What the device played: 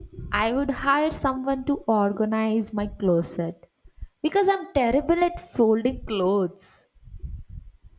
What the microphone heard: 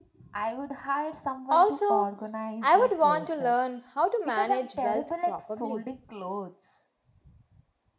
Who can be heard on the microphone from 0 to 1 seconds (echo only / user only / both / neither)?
echo only